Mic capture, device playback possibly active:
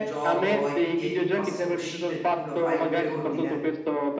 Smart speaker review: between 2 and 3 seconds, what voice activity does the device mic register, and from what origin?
both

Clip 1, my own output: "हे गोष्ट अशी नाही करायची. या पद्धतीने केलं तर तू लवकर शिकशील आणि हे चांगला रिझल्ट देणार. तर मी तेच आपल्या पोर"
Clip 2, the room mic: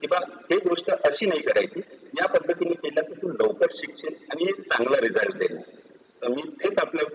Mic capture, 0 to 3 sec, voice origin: echo only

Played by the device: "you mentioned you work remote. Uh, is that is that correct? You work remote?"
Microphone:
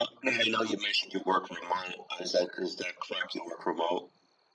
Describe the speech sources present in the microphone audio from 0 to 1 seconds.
echo only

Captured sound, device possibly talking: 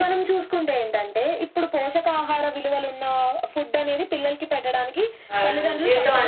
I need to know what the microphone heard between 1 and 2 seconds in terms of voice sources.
echo only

